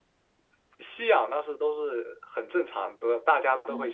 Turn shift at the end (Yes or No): No